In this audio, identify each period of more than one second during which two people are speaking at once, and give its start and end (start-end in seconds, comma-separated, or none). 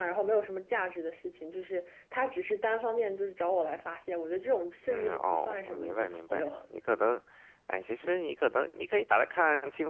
4.9-6.5